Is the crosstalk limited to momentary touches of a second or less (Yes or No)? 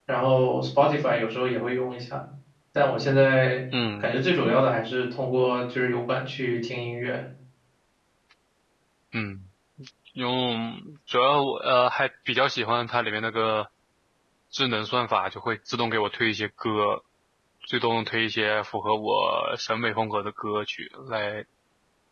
Yes